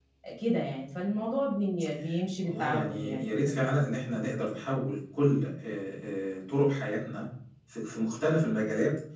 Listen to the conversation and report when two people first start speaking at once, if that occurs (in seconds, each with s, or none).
2.4 s